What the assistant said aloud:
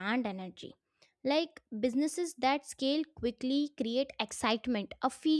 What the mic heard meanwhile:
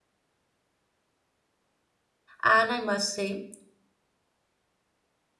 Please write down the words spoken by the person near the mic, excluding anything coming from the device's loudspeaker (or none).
And I must say,